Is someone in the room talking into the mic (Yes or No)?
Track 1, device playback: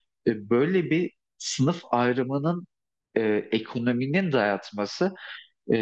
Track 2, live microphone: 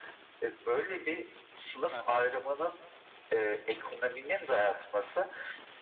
Yes